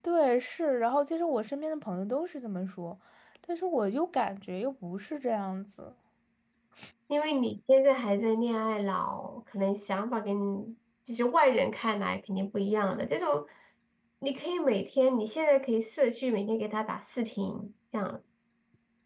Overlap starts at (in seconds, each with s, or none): none